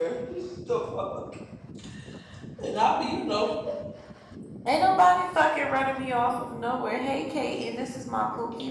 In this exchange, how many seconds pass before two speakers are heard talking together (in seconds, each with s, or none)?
none